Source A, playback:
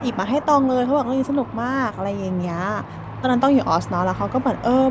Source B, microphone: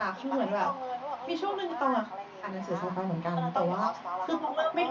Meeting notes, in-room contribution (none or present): present